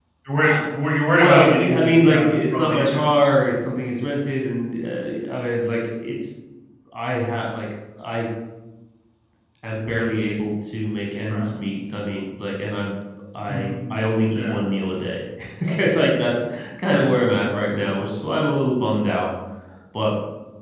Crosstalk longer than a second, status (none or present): present